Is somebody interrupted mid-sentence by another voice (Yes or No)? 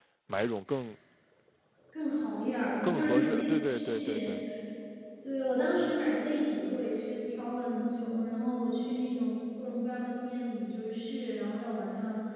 Yes